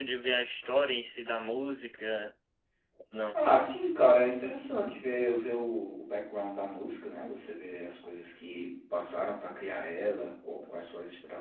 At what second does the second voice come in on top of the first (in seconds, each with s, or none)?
none